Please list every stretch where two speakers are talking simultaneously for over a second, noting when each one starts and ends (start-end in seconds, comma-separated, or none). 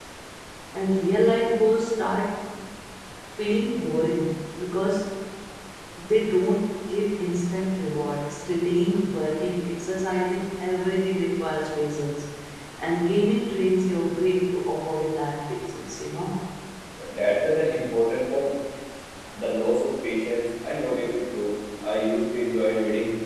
none